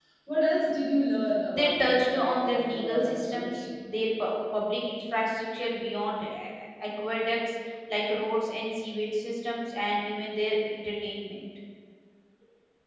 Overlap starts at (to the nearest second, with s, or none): 1 s